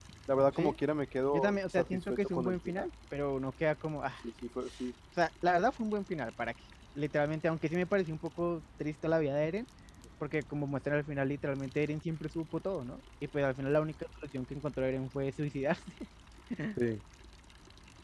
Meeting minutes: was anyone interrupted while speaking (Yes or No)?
Yes